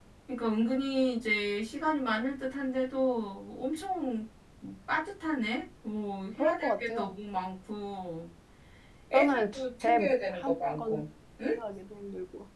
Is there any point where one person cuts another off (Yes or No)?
Yes